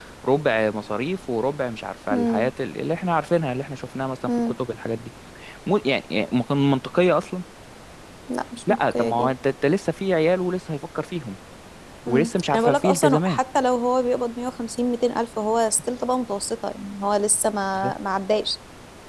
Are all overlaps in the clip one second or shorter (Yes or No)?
No